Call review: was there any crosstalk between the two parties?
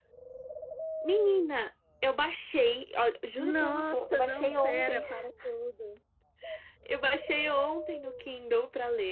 Yes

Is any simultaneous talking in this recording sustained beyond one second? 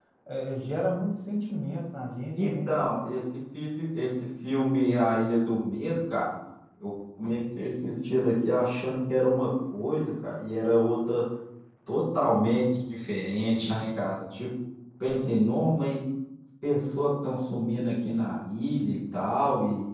No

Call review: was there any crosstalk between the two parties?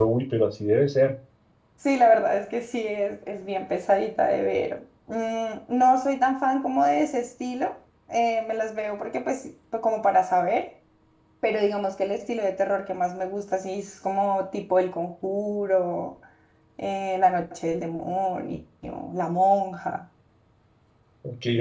No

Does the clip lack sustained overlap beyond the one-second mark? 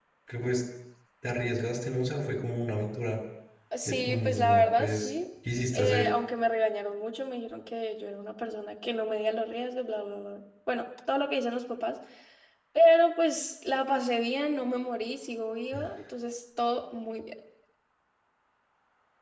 No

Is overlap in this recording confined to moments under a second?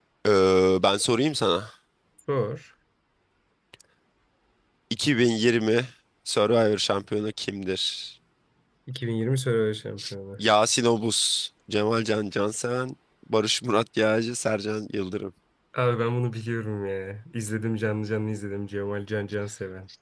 Yes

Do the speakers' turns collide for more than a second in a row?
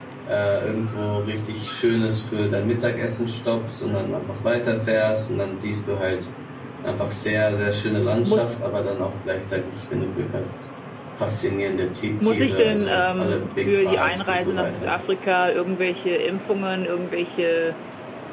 Yes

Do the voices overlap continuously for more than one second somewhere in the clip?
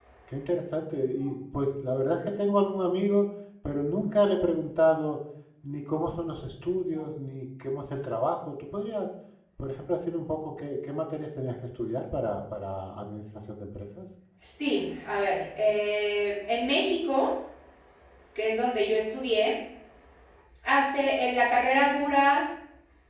No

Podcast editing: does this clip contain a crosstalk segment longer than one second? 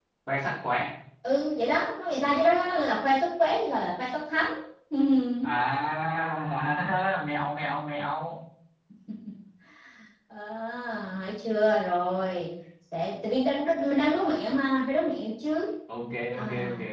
No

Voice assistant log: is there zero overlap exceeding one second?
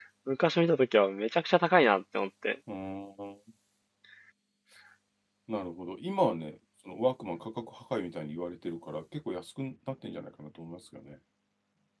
Yes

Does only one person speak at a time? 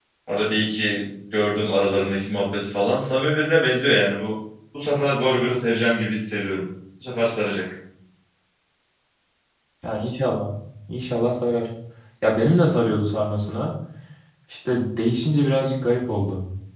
Yes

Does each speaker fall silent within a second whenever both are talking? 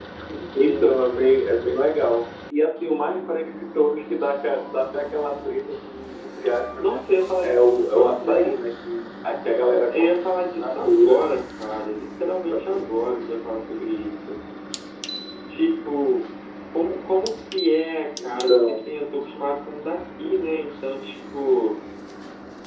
No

